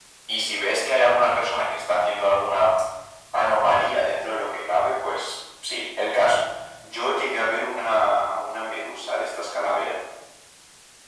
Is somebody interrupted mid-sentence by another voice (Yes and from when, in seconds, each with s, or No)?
No